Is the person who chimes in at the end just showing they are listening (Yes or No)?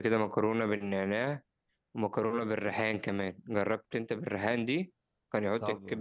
No